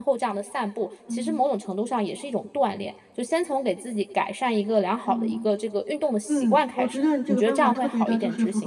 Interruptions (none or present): present